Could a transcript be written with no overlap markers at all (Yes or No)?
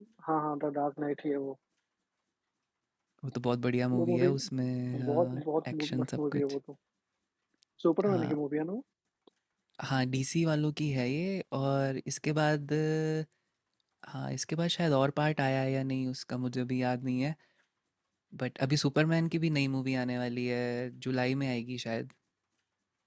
No